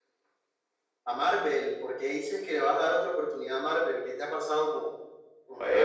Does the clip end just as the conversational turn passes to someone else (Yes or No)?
Yes